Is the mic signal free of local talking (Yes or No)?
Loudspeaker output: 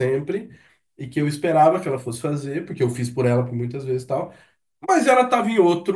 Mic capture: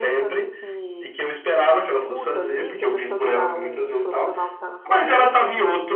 No